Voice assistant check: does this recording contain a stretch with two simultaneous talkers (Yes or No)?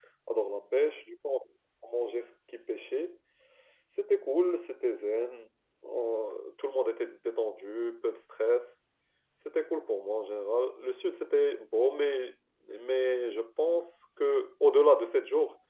No